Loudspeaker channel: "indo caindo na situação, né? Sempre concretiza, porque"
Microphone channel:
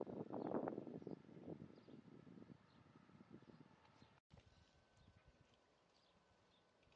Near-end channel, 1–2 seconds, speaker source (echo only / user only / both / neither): neither